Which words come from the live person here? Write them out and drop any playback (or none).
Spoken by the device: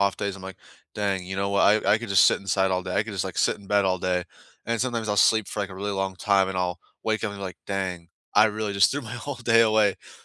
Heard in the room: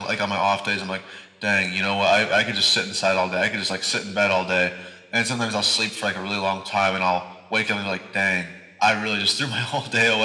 none